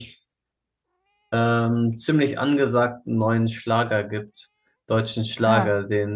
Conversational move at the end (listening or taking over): listening